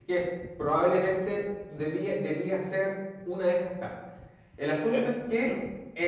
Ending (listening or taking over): taking over